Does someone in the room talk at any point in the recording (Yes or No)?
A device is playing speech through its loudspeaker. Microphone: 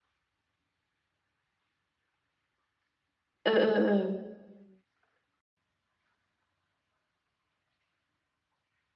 Yes